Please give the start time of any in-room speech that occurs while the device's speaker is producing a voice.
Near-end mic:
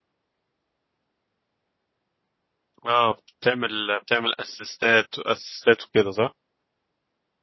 2.9 s

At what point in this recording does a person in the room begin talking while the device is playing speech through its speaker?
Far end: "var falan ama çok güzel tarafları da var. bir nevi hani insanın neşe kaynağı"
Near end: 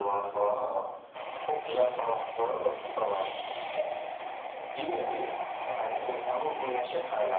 none

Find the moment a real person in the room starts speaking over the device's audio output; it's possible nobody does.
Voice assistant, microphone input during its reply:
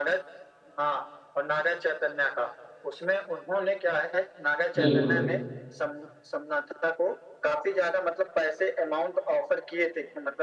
4.8 s

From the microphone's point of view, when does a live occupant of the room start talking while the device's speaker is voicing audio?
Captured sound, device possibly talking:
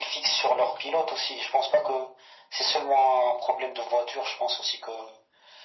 none

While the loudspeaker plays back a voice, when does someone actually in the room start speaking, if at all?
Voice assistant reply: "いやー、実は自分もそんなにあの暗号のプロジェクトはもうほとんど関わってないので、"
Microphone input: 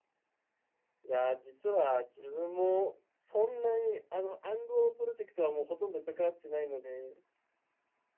none

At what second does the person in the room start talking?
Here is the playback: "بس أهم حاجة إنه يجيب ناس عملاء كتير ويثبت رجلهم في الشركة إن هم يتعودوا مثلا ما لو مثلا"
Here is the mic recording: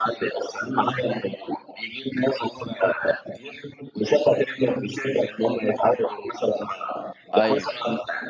7.3 s

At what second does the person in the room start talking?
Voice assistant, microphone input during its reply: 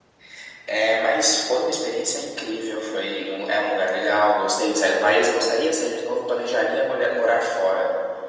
none

